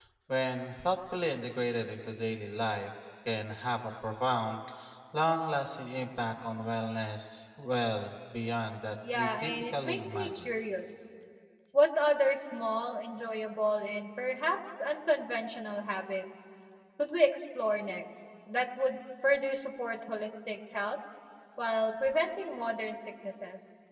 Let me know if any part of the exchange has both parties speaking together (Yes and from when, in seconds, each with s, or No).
Yes, from 9.0 s